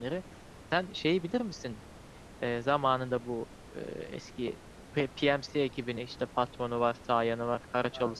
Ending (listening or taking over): taking over